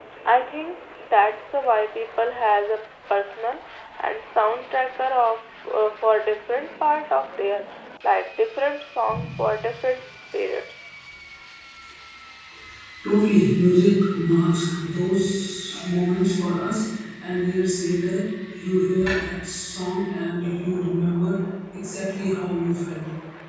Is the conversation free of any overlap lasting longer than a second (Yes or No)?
Yes